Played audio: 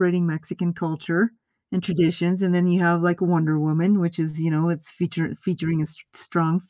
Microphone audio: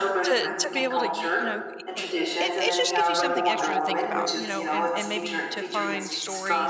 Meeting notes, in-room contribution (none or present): present